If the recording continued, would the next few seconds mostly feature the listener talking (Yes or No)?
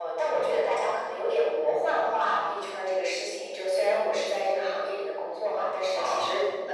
No